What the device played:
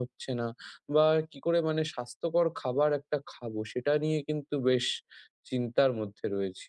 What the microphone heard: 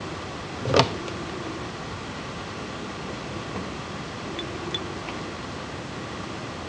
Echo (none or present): none